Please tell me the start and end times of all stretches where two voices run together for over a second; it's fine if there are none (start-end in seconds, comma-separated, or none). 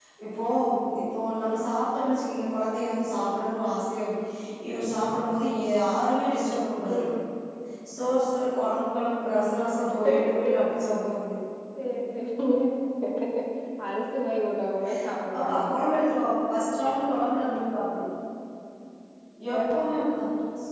none